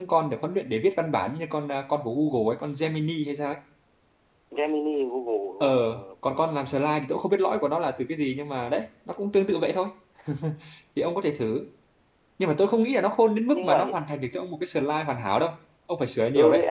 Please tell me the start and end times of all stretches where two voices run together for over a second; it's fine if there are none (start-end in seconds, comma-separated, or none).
none